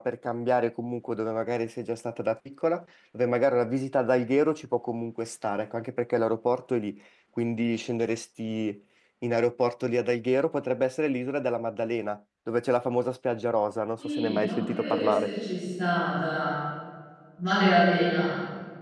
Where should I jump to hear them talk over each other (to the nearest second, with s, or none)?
14 s